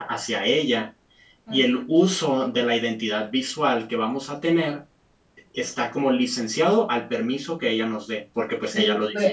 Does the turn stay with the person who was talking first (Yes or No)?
No